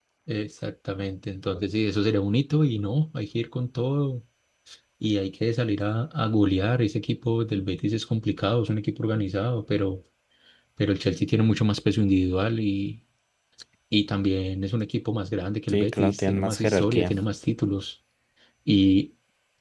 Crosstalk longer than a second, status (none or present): present